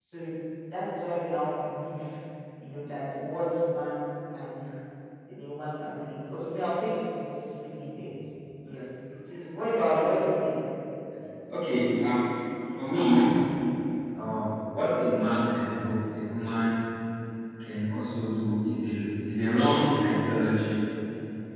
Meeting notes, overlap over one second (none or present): none